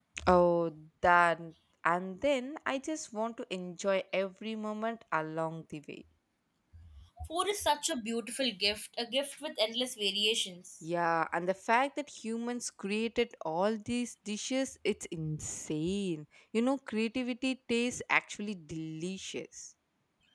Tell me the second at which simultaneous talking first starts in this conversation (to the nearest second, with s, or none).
none